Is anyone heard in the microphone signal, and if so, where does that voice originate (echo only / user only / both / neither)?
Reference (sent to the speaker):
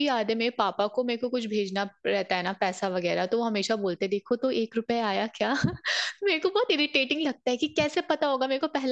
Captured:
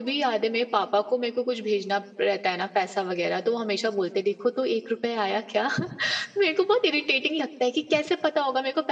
echo only